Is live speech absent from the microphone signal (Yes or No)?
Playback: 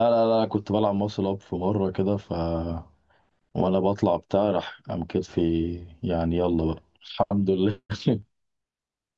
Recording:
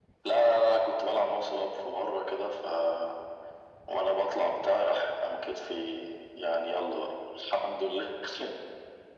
Yes